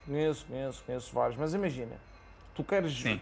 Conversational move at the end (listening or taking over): listening